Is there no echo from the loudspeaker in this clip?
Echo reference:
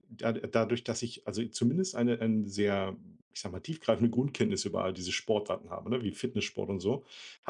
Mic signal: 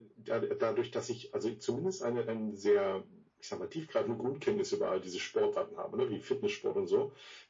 No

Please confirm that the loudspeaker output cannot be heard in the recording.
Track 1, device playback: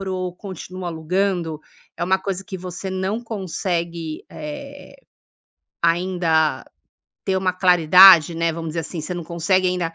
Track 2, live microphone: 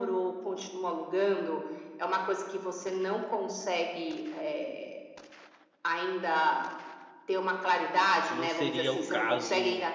No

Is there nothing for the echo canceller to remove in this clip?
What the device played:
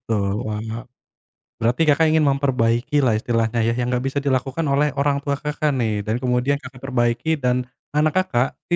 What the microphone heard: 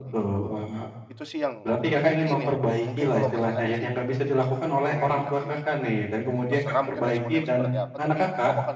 No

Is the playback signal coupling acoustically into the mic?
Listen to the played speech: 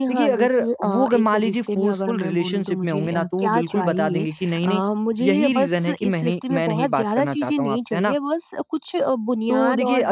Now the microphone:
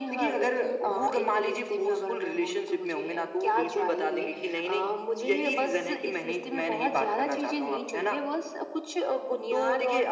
Yes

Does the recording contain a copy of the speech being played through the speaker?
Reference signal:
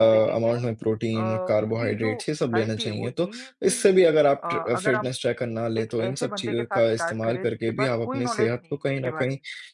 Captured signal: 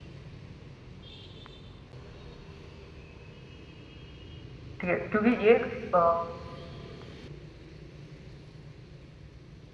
No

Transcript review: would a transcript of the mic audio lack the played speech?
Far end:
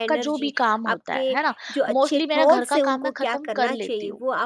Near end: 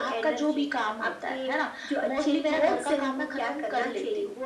No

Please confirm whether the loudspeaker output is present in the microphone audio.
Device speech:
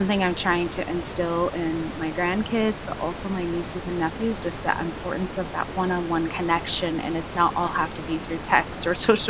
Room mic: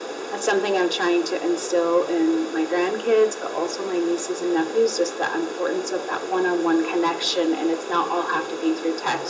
Yes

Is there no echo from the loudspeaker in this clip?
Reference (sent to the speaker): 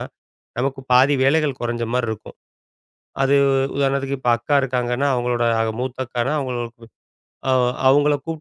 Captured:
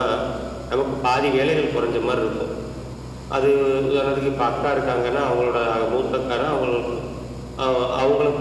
No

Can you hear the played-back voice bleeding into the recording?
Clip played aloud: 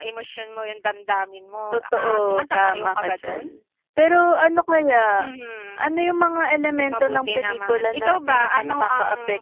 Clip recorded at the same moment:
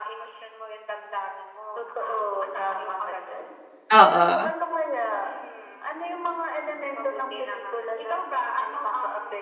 Yes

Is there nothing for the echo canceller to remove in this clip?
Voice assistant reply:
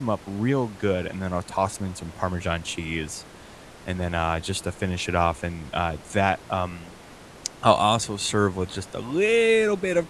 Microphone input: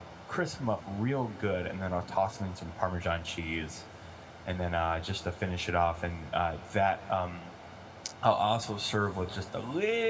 No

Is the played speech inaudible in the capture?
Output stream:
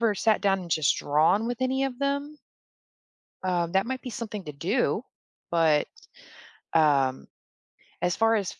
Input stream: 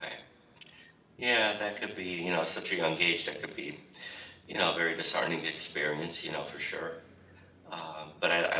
Yes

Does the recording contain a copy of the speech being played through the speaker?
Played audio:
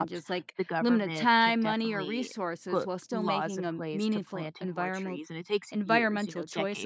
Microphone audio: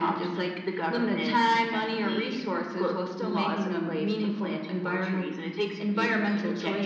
Yes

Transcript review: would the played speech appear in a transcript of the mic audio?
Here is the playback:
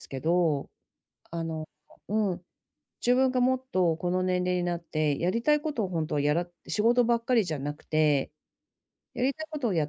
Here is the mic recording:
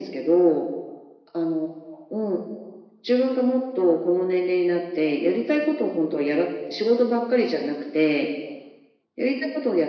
Yes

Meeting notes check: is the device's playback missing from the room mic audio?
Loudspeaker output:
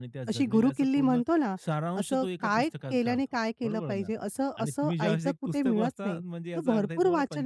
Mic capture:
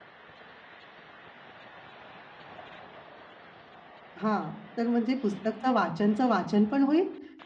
Yes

